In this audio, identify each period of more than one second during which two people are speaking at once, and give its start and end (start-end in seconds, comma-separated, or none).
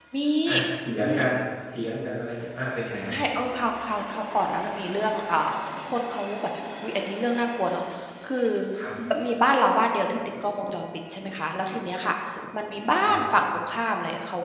none